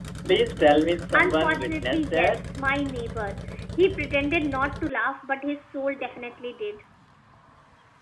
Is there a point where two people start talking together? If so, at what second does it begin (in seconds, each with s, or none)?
1.1 s